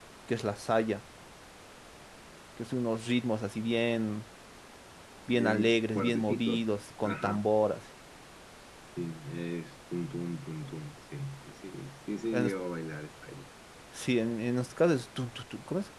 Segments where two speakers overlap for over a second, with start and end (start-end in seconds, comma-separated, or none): 5.3-6.6